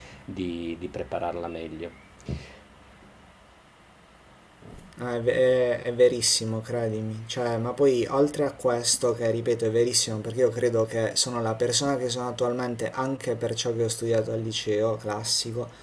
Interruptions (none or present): none